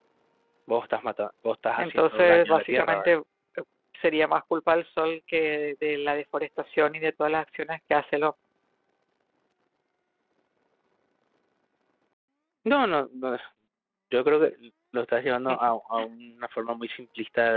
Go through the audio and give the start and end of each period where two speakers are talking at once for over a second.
1.8-3.1

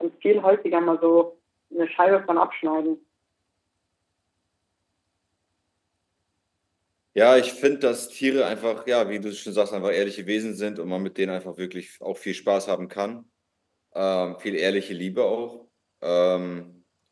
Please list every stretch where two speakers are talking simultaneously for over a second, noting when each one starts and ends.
none

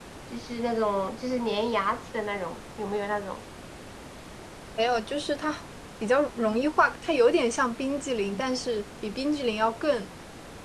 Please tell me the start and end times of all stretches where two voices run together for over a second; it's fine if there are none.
none

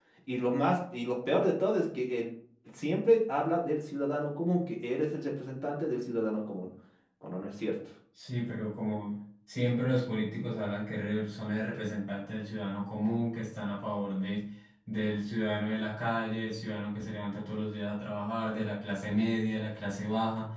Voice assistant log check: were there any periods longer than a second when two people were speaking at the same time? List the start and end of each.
none

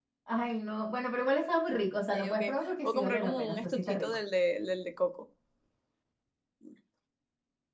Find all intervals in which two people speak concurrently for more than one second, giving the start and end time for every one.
2.8-4.2

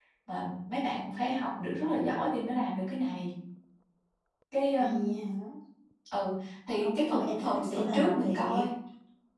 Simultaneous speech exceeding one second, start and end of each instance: 6.8-8.7

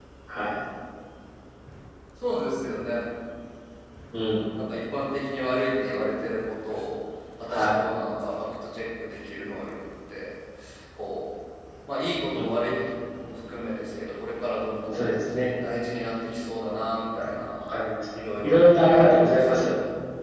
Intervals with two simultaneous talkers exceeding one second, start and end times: 18.4-19.7

